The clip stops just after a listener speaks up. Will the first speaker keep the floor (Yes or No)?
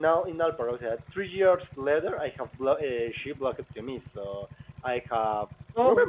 Yes